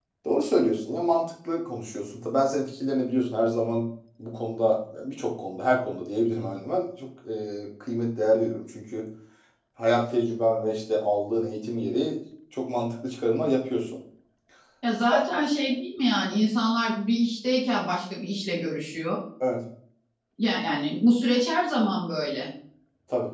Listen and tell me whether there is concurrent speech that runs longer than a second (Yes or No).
No